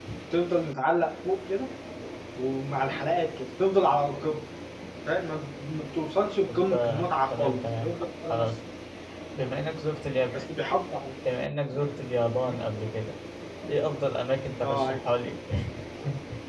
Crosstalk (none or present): present